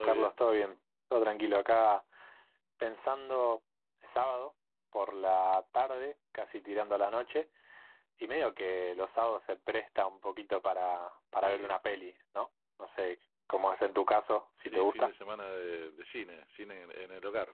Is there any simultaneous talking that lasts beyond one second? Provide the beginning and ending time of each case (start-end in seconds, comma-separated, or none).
none